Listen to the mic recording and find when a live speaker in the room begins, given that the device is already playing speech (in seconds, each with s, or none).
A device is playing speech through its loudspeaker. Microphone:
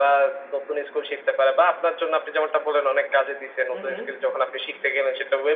3.7 s